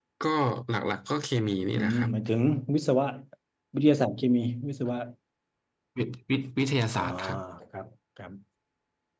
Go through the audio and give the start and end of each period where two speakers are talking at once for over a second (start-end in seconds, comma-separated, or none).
none